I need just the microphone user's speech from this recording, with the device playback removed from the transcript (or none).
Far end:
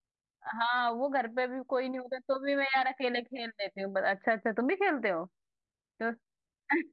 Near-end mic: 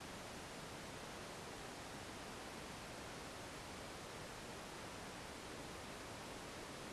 none